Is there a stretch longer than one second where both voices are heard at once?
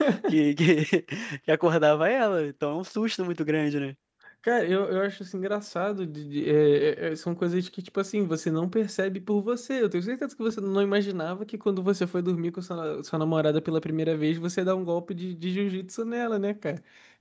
No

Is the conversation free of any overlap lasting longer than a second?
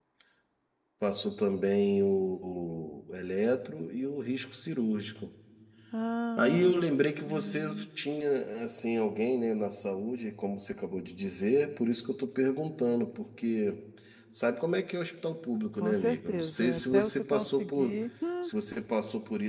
No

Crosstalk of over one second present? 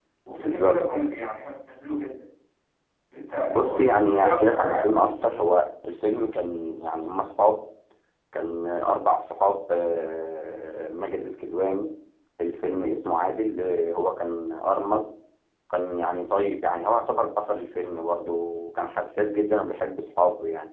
Yes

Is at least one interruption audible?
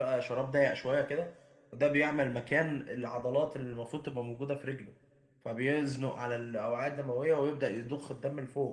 No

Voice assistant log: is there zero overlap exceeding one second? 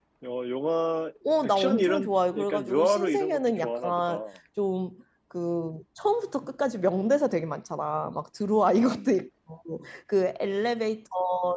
No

